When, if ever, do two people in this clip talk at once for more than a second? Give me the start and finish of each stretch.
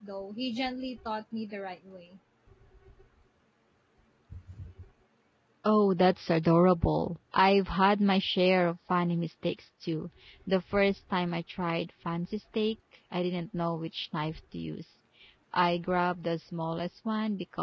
none

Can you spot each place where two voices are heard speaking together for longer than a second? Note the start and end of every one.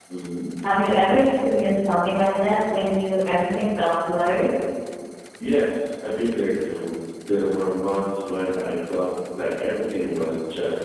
none

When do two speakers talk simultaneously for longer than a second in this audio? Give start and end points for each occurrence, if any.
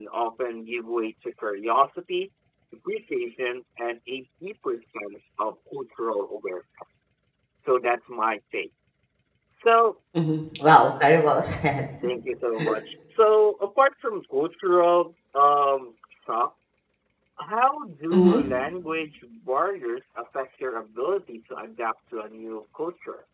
none

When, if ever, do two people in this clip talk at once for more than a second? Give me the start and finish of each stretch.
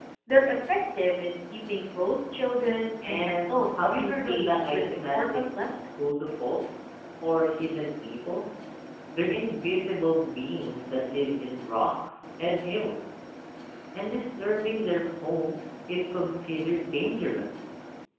3.1-5.4

